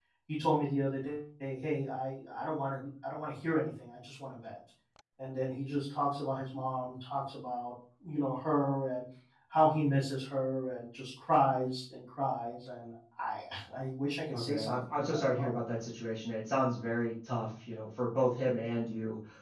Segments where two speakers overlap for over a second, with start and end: 14.3-15.5

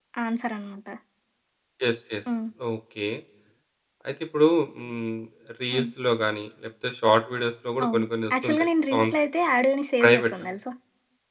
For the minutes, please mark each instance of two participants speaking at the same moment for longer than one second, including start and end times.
7.8-9.1

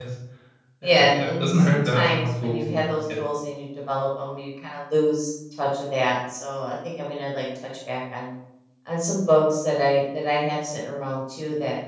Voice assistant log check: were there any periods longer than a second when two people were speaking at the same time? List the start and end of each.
0.8-3.0

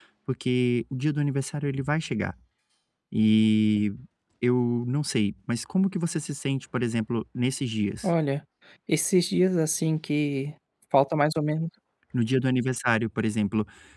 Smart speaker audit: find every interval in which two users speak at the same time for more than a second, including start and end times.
none

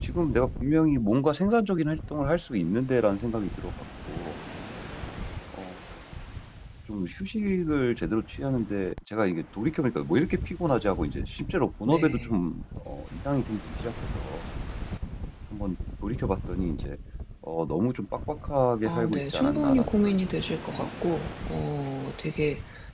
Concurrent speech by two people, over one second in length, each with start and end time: 18.9-21.2

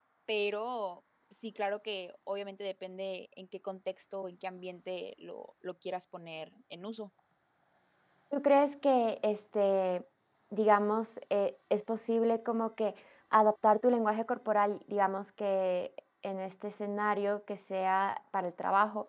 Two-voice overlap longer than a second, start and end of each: none

